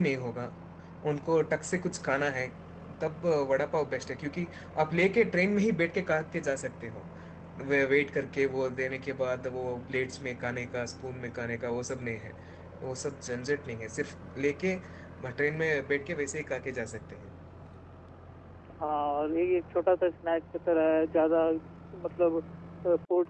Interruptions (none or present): none